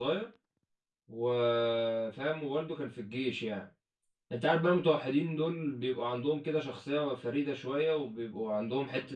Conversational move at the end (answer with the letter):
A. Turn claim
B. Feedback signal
B